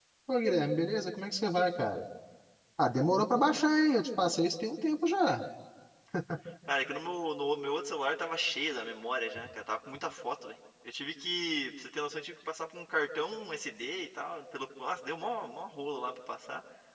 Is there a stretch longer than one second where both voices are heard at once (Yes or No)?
No